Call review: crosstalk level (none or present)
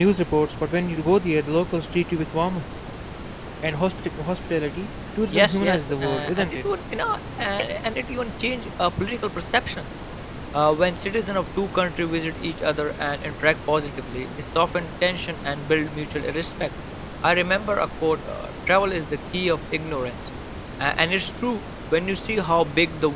present